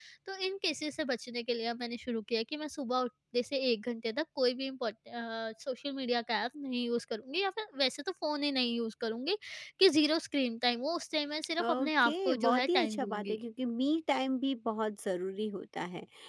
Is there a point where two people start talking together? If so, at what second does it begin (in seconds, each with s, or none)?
11.6 s